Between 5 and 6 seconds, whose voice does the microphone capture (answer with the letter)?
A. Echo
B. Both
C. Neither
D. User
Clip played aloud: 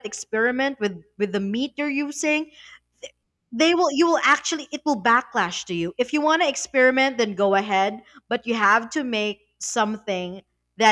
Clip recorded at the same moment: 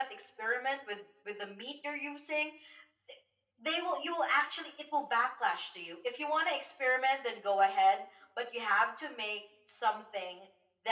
A